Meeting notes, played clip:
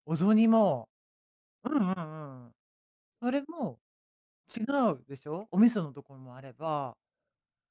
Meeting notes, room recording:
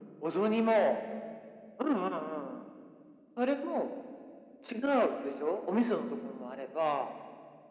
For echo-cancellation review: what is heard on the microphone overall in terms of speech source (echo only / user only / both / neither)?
echo only